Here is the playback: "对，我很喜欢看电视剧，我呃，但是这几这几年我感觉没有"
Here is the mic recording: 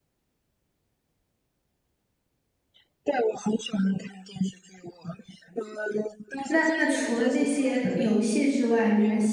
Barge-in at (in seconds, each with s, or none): 6.5 s